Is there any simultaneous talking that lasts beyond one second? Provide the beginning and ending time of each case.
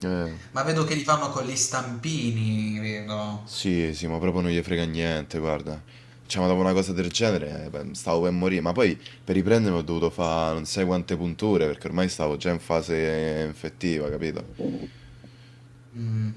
none

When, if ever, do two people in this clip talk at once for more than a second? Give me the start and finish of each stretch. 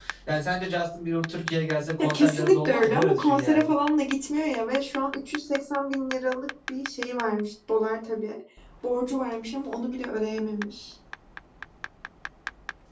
2.0-3.7

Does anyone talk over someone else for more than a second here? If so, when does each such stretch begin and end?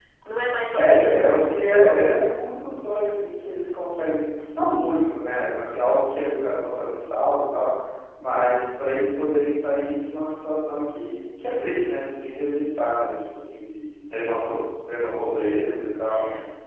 0.7-2.2

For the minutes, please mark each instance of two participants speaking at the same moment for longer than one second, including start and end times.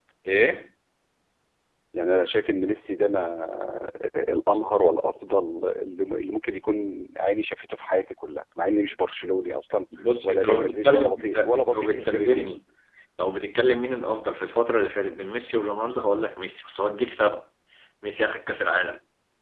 10.2-12.6

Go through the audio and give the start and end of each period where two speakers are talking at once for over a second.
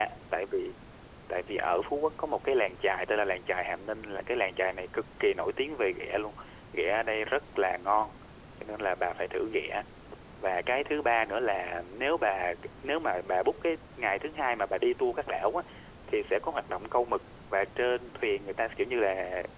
none

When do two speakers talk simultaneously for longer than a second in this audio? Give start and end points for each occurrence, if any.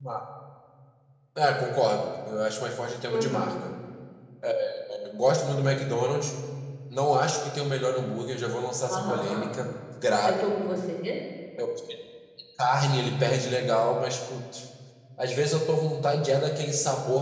none

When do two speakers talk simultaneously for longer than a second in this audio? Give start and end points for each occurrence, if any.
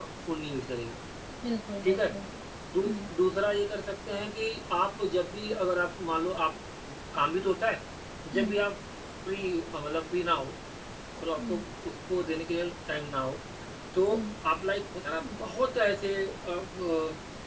none

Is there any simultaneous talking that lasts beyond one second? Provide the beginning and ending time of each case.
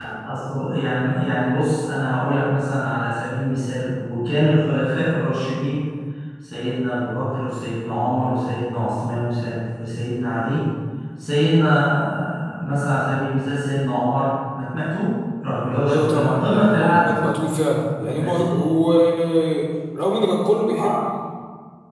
15.7-17.1

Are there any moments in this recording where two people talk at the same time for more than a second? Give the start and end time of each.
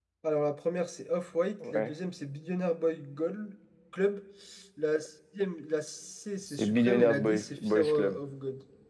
6.5-8.2

